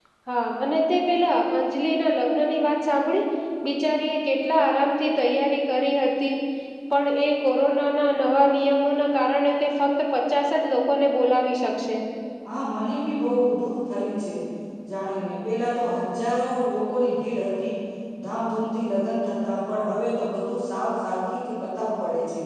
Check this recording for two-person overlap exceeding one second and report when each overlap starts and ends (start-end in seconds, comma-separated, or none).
none